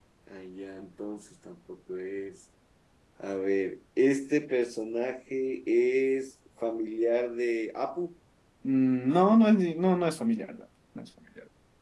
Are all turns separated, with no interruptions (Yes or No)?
Yes